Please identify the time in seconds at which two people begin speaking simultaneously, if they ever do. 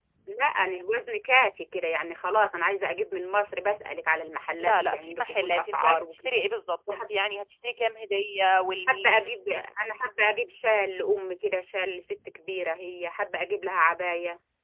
4.6 s

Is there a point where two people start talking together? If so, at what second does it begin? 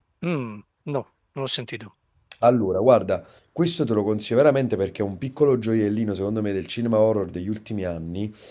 none

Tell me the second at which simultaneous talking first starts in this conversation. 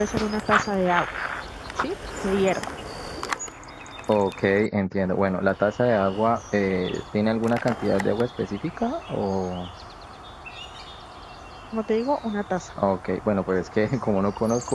none

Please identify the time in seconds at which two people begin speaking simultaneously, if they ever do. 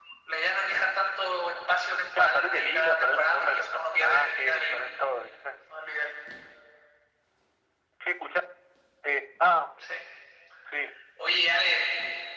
2.1 s

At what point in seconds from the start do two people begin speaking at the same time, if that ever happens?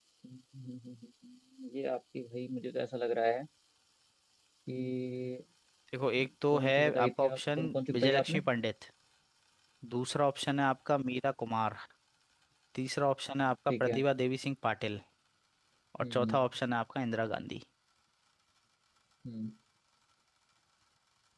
6.5 s

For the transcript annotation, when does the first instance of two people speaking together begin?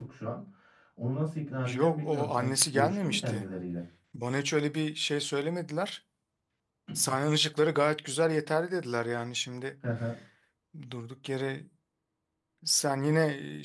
1.7 s

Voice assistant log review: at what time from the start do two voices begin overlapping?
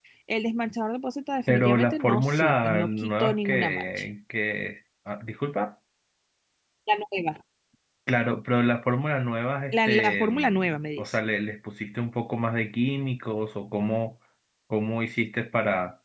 1.5 s

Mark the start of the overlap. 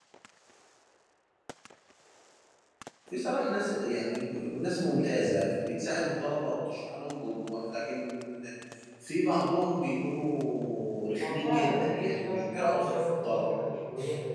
11.2 s

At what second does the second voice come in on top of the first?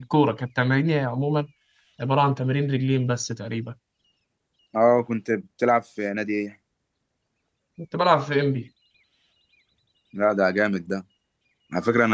none

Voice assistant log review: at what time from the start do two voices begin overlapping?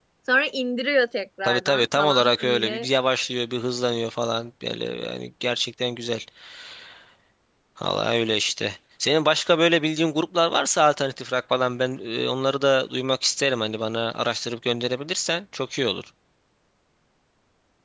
1.4 s

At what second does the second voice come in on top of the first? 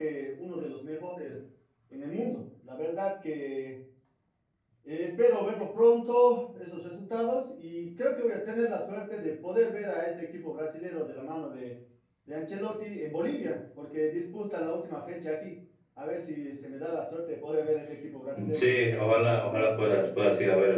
18.3 s

